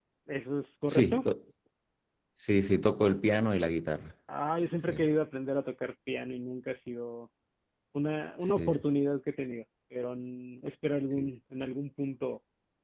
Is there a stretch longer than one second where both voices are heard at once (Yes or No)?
No